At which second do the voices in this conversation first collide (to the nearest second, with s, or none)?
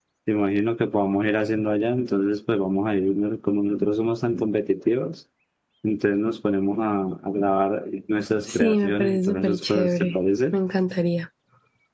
8 s